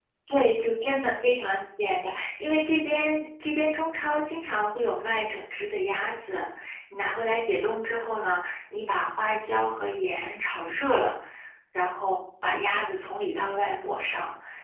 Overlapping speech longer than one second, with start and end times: none

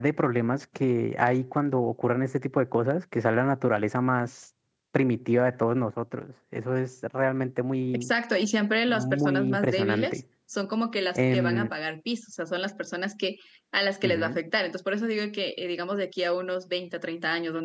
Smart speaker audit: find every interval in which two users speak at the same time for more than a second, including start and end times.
8.9-10.2

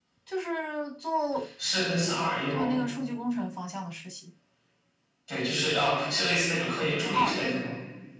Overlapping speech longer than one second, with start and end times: none

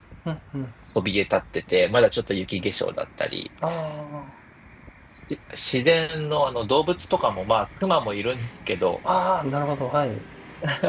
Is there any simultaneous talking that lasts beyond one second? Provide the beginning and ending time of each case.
none

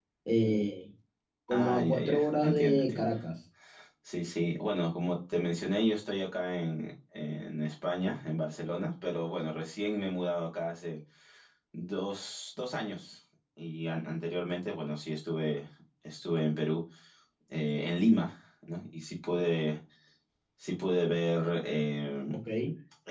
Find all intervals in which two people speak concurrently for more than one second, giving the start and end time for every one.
1.5-3.1

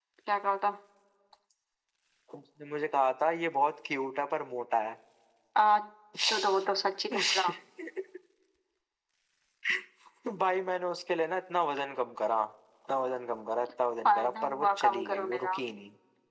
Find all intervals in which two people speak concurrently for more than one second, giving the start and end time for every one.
14.1-15.6

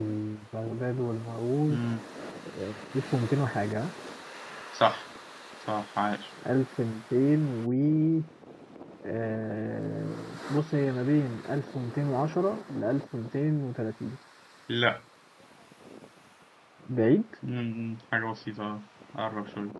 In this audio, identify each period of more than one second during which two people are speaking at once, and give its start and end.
none

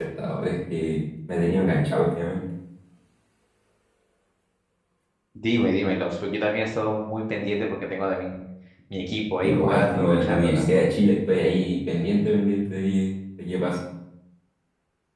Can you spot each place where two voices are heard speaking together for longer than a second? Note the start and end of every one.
9.4-10.7

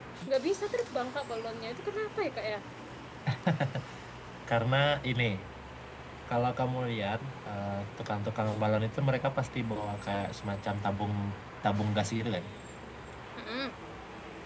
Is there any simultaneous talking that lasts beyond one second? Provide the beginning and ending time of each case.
none

